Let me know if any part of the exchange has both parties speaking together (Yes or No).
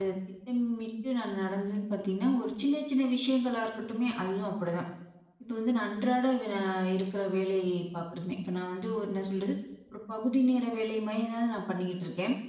No